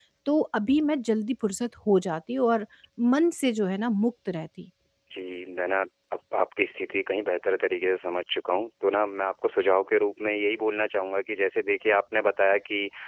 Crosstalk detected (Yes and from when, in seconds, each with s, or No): No